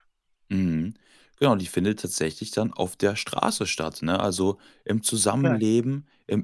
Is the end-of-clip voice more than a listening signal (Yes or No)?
No